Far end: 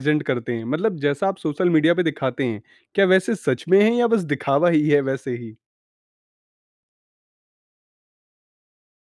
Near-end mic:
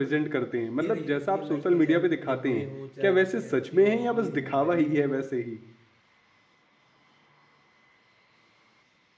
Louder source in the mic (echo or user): echo